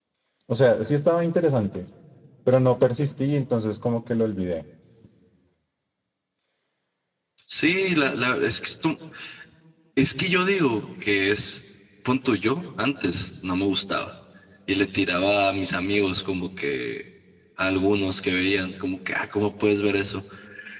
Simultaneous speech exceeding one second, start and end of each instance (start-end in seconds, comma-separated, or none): none